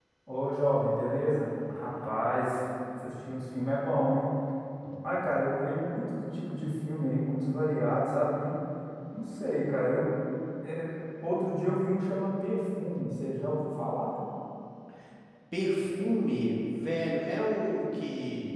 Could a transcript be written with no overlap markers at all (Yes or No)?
Yes